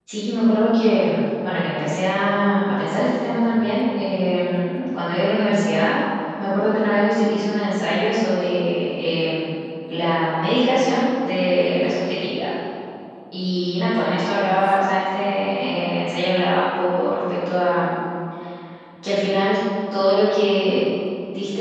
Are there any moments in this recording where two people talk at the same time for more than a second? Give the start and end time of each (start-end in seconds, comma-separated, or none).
none